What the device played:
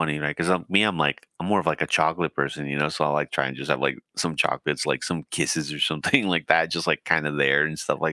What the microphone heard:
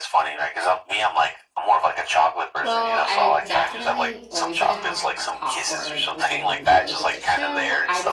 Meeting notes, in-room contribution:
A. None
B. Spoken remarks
B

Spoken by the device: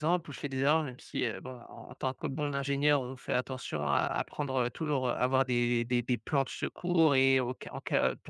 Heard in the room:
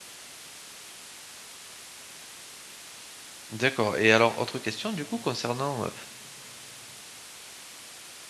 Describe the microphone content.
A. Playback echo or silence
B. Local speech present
B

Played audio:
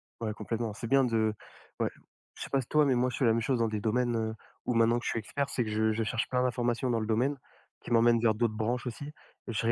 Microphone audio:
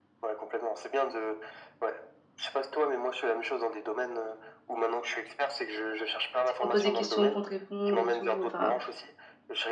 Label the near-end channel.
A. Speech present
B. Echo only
A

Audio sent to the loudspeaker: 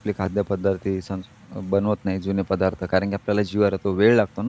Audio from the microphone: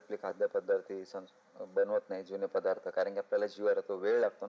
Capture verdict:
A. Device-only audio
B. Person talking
A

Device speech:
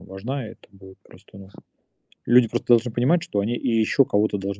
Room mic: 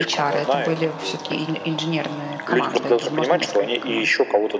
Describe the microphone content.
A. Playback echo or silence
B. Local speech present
B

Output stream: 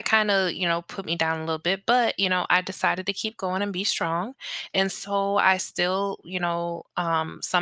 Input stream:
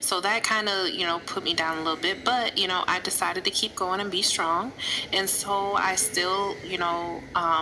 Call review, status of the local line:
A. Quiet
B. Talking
A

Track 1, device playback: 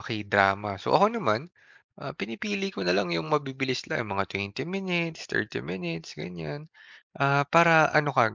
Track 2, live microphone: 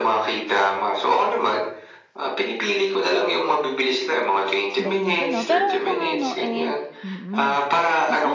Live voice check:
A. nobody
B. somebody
B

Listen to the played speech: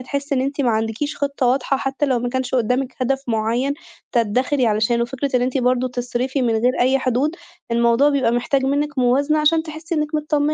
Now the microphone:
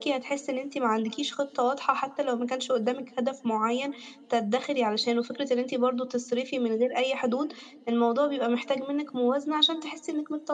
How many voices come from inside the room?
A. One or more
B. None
B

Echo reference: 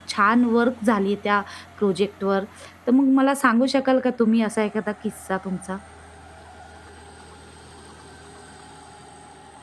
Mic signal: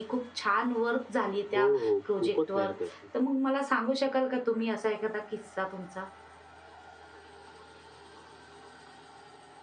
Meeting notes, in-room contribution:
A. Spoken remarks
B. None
A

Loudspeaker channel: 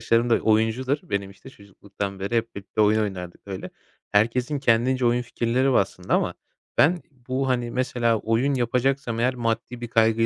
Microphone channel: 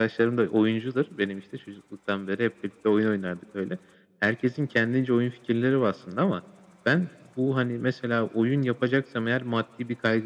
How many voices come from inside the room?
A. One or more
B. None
B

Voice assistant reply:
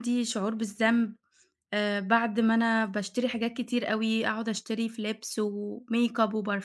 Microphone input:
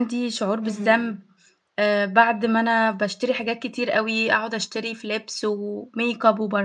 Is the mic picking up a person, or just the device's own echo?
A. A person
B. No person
A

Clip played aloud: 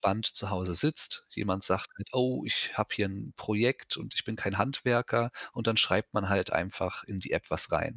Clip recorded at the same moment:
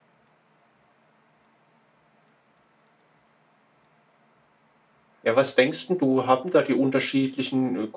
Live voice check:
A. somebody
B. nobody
A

